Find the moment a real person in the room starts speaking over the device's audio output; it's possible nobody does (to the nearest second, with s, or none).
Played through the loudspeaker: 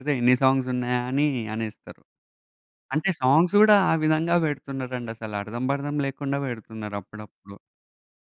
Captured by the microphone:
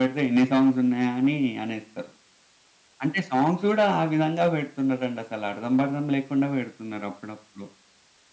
none